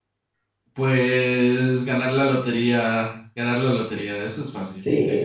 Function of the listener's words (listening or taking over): taking over